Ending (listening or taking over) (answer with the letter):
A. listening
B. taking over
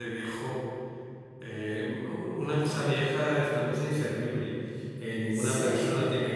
A